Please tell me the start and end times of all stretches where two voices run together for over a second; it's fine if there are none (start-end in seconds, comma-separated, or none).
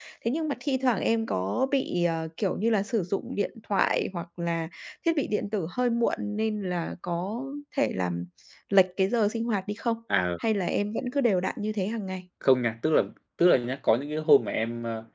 none